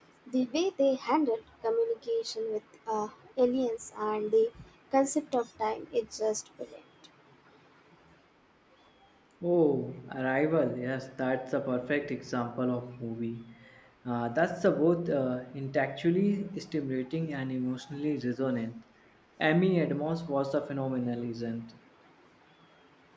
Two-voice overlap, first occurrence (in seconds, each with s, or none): none